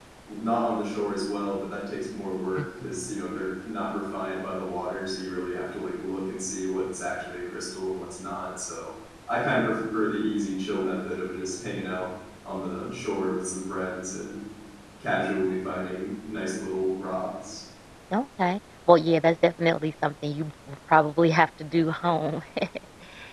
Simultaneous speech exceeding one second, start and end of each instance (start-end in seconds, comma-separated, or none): none